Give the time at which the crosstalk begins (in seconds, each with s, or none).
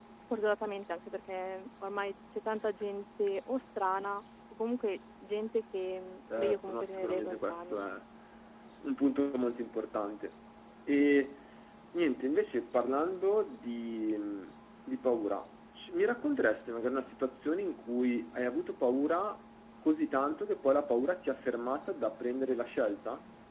6.3 s